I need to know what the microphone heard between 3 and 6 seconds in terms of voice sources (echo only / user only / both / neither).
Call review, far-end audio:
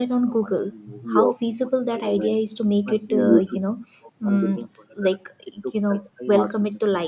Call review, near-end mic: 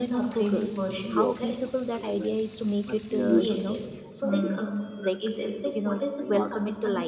both